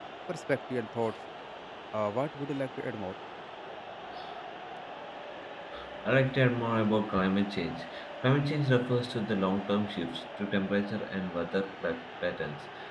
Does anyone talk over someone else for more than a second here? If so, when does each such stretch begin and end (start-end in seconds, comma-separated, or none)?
none